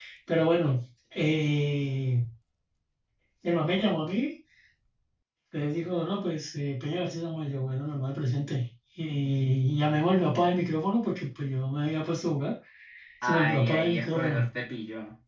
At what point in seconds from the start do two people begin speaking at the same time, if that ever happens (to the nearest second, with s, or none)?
13 s